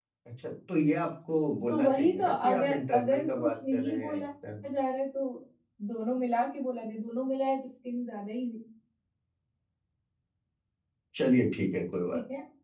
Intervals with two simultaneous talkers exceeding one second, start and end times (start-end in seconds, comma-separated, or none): 1.7-4.2